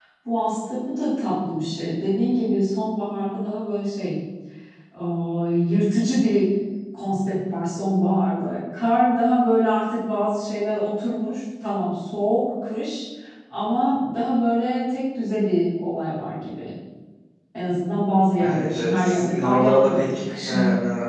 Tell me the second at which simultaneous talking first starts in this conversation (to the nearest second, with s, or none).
18 s